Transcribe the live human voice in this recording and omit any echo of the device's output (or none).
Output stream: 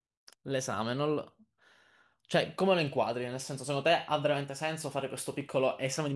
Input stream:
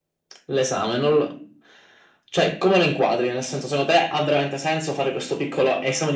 none